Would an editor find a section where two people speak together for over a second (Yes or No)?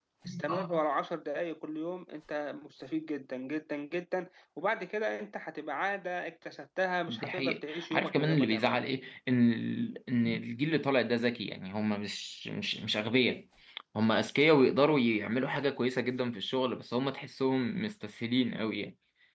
Yes